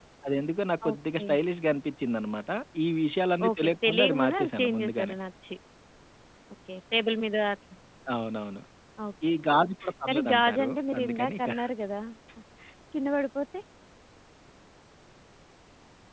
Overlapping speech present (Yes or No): Yes